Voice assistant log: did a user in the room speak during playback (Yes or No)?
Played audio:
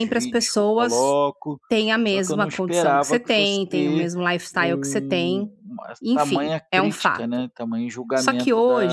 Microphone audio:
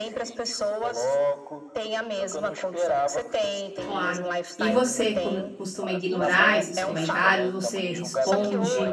Yes